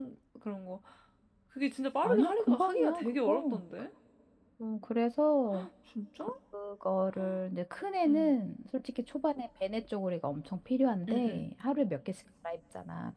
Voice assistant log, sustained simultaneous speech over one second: present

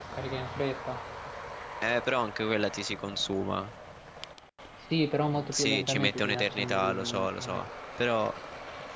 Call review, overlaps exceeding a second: present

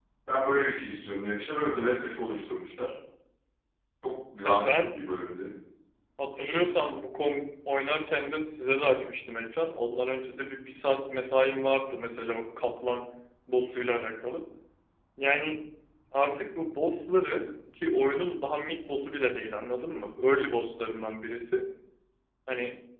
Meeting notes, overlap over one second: none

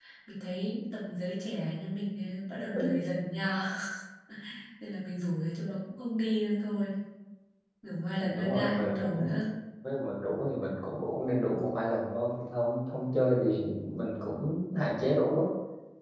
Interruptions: present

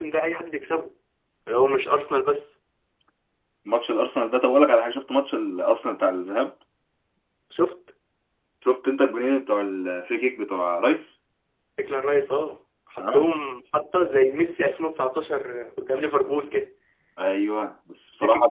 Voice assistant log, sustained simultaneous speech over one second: none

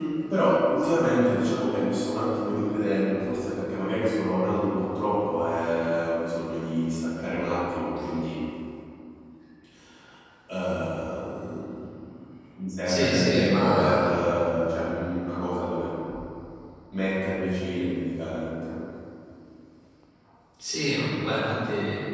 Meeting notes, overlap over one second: present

